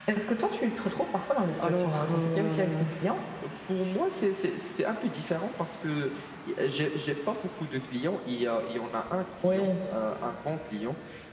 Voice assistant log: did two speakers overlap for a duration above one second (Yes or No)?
Yes